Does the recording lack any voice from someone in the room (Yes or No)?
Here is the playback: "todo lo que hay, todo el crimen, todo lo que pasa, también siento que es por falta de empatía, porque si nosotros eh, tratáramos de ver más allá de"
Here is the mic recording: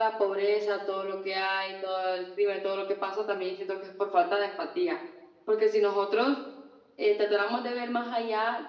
Yes